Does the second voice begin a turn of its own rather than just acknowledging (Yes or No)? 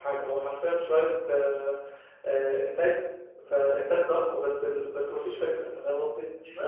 No